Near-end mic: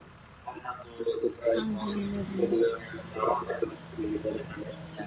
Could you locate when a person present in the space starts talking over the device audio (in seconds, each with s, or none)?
1.6 s